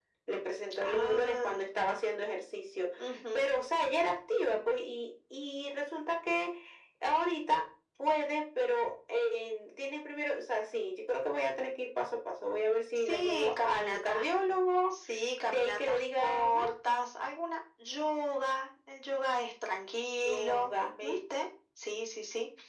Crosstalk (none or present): present